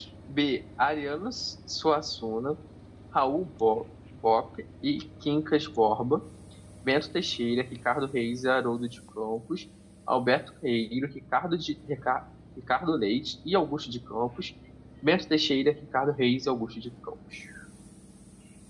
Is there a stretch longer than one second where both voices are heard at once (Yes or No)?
No